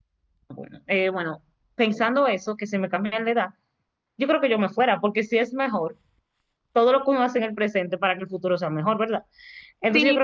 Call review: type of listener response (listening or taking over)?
taking over